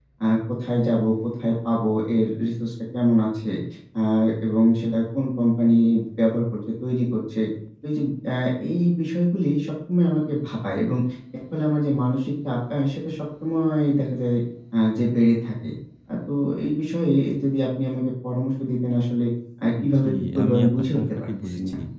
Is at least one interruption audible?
Yes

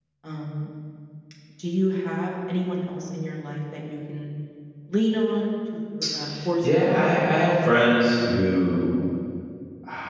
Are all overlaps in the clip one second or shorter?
No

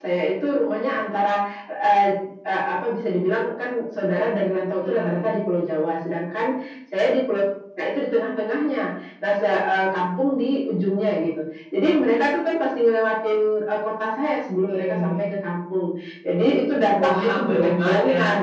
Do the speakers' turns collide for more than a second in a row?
Yes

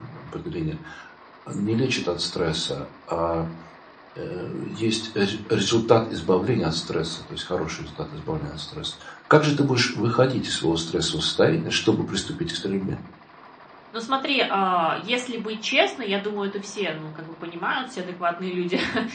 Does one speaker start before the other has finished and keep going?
No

